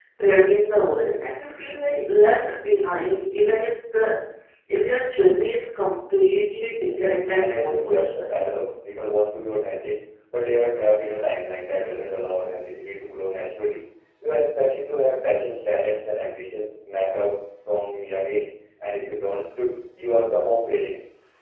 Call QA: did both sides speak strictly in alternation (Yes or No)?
No